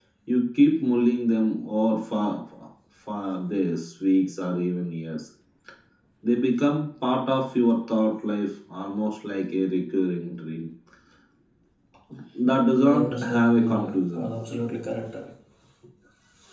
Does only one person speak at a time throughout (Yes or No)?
No